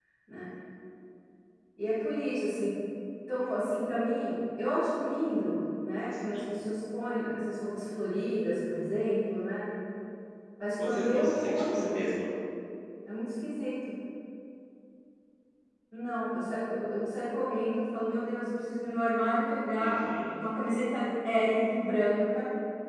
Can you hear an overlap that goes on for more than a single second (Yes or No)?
Yes